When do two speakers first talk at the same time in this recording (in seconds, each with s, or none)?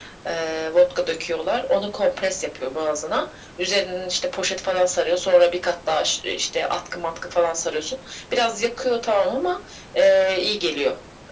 none